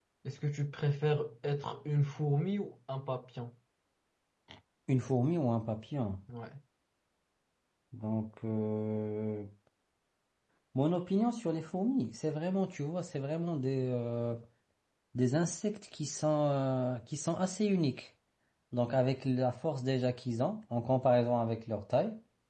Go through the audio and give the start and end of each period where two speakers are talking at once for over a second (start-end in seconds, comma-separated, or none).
none